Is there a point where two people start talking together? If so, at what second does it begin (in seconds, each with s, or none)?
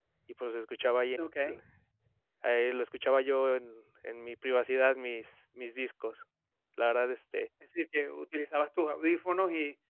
none